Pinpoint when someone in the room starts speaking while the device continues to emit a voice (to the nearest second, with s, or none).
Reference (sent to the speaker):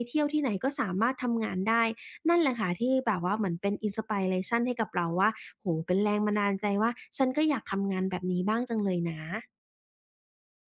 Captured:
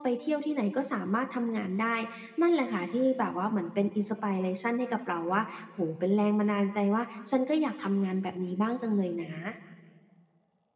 none